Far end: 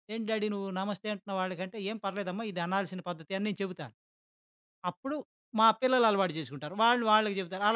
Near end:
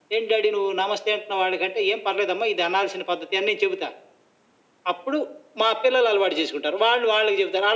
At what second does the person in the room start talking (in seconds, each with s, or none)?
none